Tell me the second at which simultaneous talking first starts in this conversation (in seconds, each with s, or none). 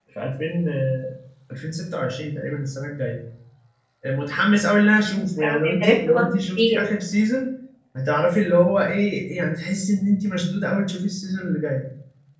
5.1 s